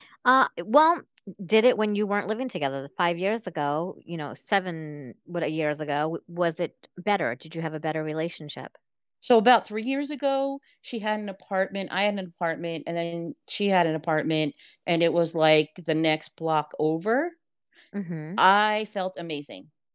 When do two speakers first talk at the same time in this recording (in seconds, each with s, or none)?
none